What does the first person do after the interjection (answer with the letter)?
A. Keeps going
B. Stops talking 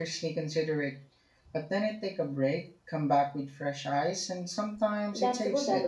B